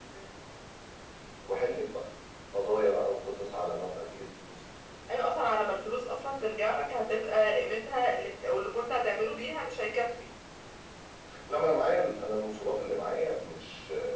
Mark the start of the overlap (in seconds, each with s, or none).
none